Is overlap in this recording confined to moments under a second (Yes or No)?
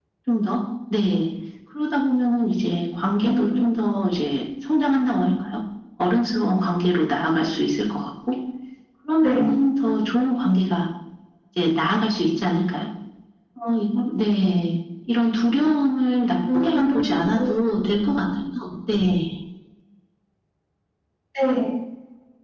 No